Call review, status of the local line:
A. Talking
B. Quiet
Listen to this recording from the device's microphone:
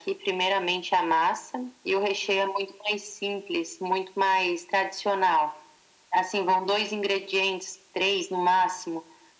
B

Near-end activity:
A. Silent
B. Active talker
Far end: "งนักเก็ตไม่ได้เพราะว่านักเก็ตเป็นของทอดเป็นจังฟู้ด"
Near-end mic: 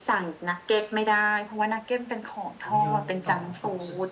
B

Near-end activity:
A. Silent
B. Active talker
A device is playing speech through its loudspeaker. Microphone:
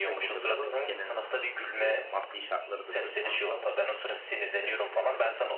B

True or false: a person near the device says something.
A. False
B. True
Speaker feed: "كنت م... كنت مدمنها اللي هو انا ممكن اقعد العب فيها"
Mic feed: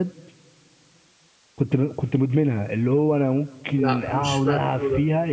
B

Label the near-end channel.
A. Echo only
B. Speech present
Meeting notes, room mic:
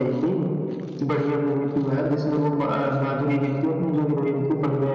A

